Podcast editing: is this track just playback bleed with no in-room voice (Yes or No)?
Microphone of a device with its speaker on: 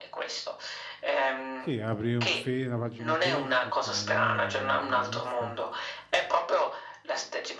No